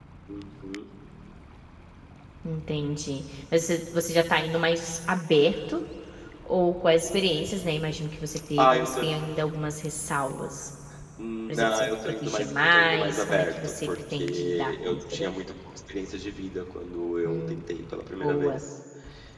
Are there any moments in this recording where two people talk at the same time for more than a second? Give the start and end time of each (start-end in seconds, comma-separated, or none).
11.5-15.3